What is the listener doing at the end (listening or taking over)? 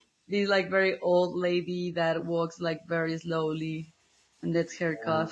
taking over